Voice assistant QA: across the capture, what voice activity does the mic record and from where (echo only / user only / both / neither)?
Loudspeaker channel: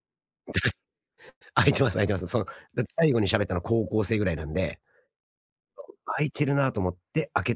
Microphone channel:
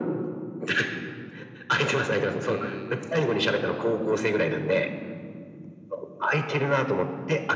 both